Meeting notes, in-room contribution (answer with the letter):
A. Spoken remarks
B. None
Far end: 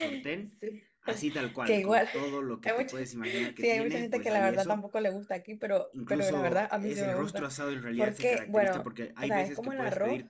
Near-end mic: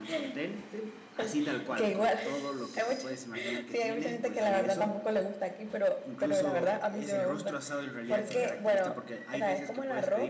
A